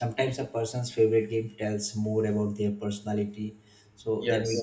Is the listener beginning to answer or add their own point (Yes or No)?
No